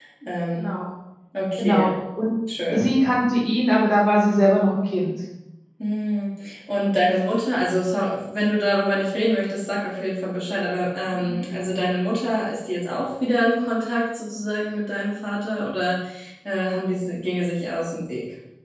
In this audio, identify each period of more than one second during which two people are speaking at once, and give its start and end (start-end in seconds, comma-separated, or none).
none